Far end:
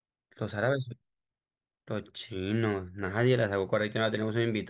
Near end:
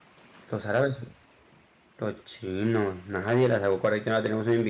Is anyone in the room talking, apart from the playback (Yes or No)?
No